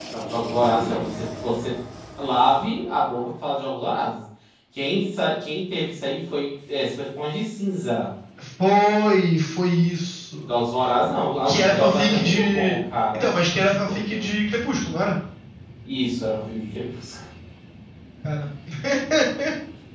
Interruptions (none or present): present